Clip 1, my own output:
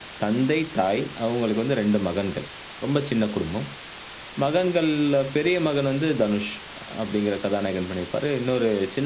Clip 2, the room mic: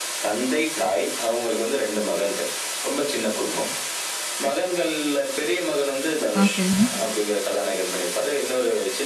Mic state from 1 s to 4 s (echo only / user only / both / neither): echo only